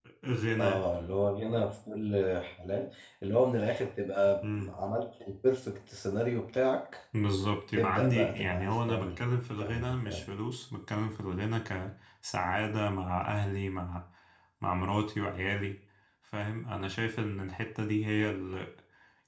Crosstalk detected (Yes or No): Yes